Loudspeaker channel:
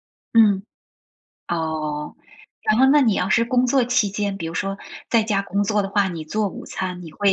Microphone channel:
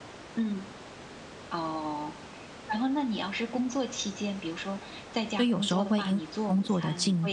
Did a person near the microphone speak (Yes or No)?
Yes